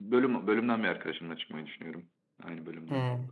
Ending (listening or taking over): taking over